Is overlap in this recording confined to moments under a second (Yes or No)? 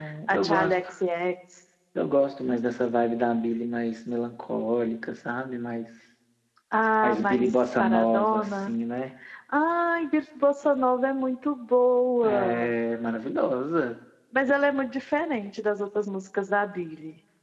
No